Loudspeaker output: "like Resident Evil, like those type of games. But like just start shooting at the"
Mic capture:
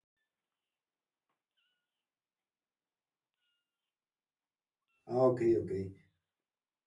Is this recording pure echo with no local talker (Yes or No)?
No